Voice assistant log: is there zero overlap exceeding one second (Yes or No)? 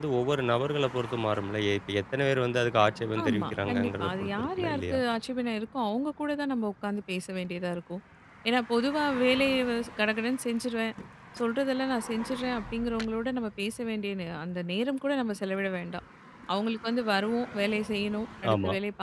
No